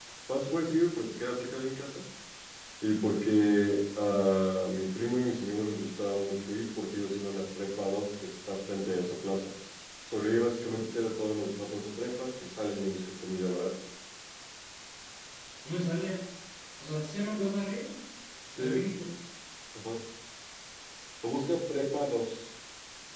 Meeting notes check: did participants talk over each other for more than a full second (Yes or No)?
No